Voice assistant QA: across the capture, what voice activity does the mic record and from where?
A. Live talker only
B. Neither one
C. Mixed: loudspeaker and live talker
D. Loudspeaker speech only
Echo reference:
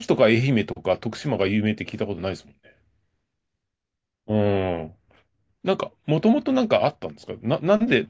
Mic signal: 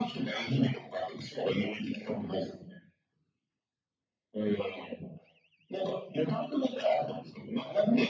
D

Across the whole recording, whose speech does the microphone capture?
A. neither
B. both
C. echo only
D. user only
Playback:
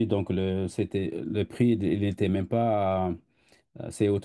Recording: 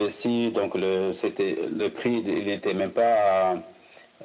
C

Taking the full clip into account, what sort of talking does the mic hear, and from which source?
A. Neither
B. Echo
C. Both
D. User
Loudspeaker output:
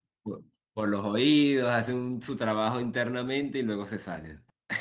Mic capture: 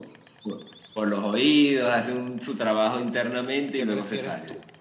C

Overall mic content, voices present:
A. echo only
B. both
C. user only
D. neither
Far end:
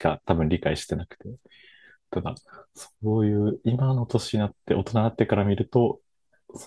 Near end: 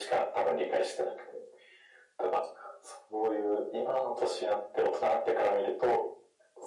A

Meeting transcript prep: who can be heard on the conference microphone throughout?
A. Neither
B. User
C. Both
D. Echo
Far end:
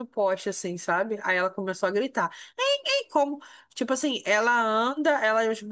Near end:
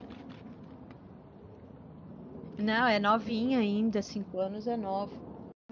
B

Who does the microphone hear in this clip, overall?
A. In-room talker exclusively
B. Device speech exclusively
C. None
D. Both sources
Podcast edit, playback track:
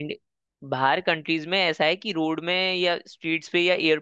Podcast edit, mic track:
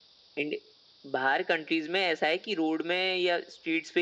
B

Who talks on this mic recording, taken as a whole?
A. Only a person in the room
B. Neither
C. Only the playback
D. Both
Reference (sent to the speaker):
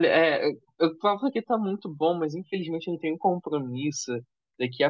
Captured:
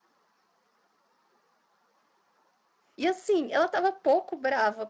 A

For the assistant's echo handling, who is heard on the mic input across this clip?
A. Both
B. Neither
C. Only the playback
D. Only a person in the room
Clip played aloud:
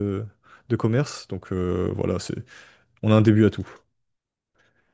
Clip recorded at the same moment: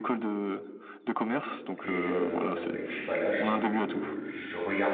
A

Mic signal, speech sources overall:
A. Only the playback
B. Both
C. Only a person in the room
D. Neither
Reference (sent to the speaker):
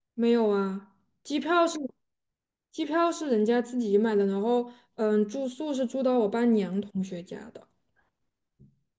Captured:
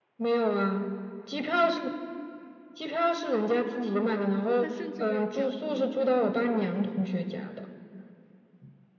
B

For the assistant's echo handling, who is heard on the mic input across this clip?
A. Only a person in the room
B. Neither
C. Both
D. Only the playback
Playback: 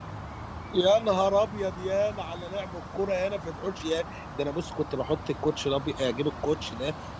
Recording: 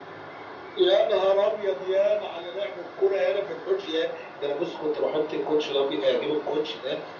D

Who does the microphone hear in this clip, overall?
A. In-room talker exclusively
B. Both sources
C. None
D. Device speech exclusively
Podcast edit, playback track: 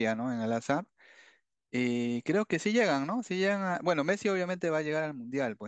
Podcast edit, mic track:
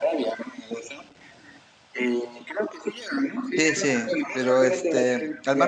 B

